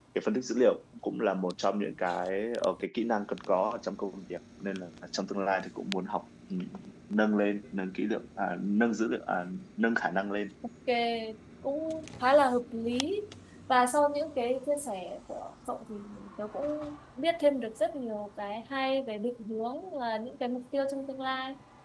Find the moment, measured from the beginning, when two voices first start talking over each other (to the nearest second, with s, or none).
none